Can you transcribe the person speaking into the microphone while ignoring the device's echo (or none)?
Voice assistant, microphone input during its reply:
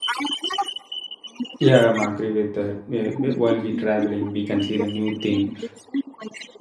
Yeah, I'm agree with that. Yeah, wh- While we traveling, we can see the new thing